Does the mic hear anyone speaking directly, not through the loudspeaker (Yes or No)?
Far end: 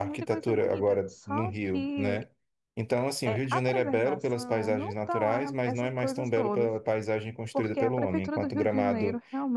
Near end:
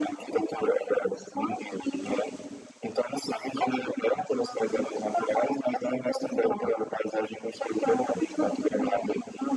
No